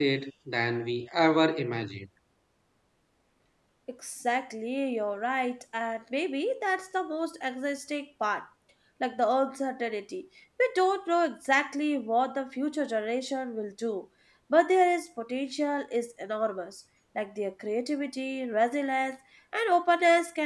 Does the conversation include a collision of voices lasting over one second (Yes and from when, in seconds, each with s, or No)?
No